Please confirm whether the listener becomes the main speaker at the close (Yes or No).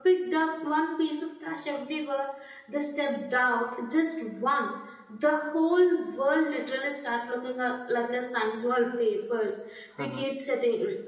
No